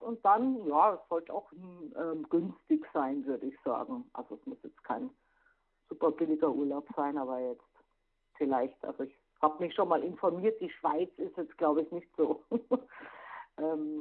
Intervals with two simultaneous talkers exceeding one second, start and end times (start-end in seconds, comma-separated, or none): none